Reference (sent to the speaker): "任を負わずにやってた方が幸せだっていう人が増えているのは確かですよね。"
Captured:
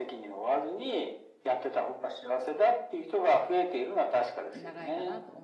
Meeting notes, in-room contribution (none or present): present